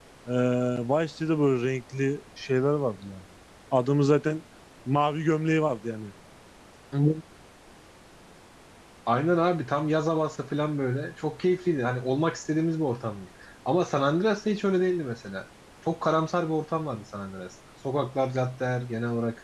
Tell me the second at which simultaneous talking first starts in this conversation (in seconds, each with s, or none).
none